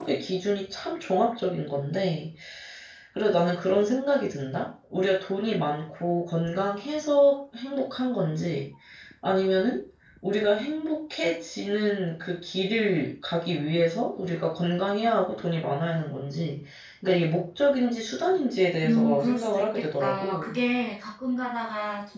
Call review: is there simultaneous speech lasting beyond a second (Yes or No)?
Yes